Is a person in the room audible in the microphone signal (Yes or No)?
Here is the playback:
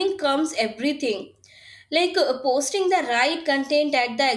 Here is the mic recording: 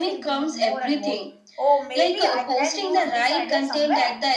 Yes